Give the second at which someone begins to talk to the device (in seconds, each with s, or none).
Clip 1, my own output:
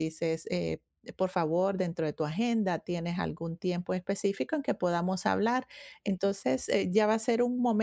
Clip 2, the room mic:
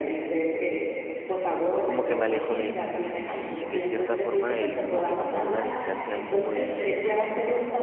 1.8 s